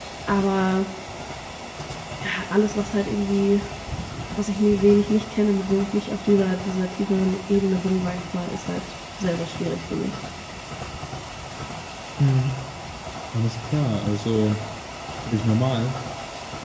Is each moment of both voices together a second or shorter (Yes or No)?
Yes